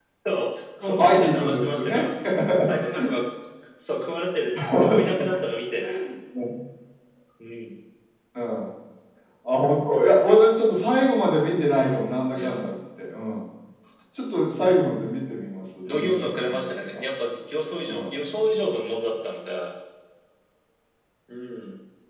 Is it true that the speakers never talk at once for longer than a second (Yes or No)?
No